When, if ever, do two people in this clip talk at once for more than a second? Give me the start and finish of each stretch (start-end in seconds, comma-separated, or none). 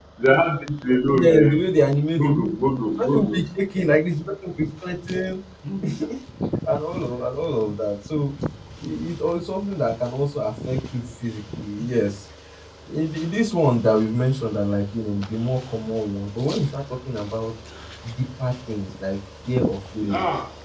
none